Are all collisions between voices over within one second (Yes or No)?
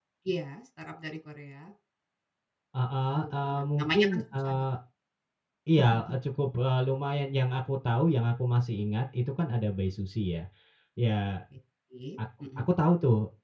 No